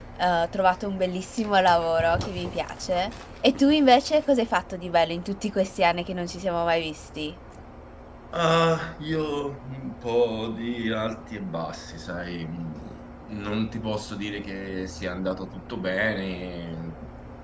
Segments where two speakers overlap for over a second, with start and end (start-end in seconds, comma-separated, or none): none